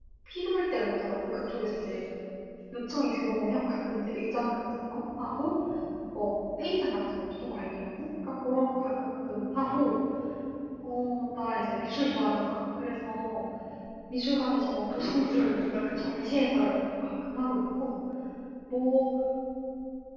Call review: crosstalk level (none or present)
present